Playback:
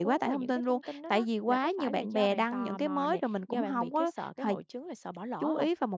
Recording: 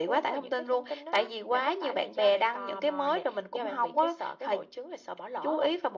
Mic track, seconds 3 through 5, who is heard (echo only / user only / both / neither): echo only